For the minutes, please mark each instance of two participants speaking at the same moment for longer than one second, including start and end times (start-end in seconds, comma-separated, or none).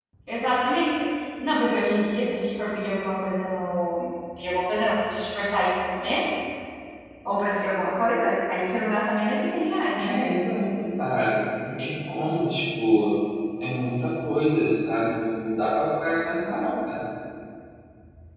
none